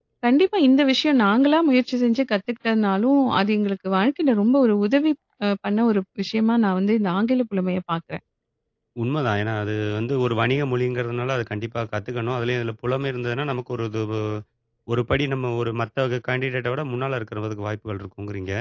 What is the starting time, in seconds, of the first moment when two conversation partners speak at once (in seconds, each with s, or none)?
none